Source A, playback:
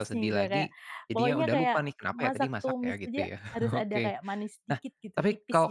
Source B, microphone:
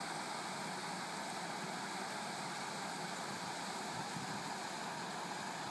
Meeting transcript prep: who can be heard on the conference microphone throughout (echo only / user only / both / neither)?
neither